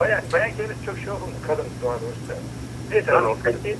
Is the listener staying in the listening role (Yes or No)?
Yes